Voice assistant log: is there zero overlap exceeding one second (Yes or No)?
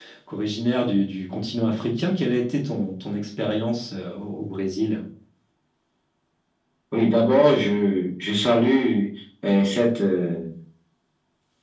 Yes